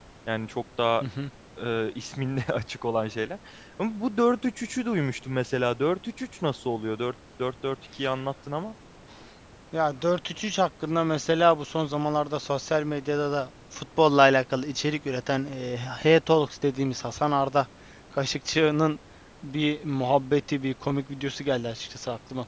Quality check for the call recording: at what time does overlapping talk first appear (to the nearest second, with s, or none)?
none